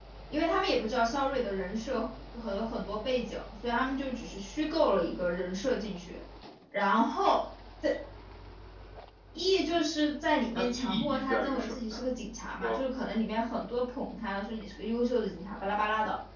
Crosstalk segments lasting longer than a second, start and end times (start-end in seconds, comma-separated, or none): 10.5-12.0